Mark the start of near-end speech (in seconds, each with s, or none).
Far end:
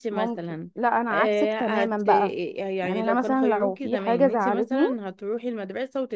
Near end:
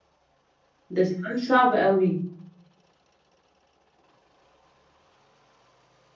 0.9 s